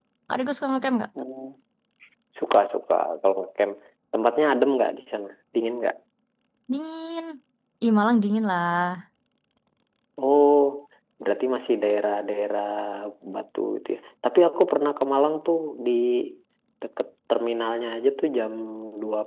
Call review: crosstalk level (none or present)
none